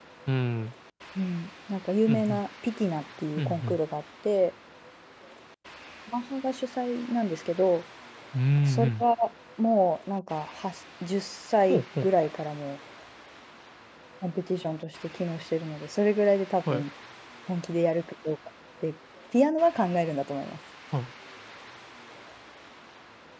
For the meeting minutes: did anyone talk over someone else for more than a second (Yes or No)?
No